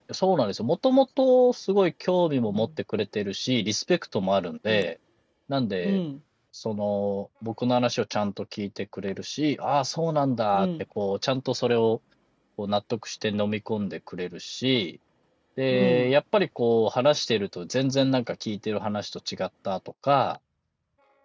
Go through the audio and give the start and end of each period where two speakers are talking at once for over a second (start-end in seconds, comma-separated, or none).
none